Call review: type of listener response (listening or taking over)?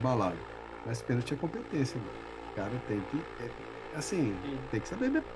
listening